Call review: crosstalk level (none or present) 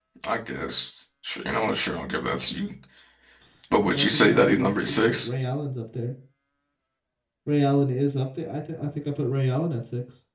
present